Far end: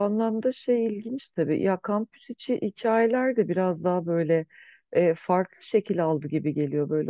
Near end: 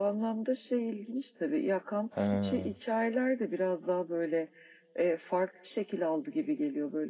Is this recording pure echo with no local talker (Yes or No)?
No